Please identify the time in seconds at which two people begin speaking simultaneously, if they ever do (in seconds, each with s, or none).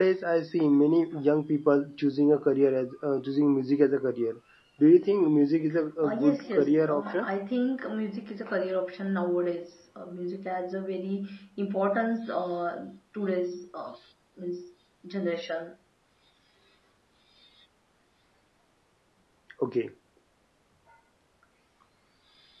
6.0 s